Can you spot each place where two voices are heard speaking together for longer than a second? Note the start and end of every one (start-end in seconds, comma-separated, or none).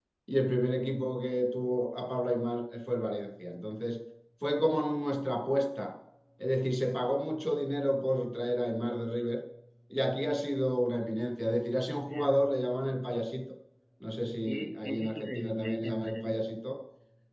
14.4-16.4